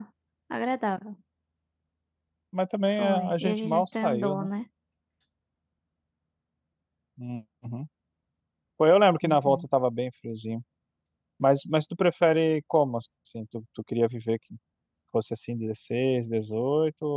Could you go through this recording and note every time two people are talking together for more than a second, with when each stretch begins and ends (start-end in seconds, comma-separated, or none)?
3.0-4.5